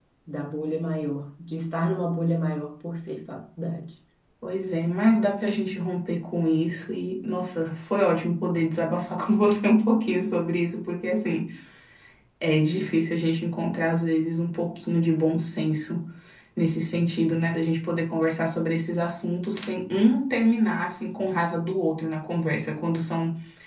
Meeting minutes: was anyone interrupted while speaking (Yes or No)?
No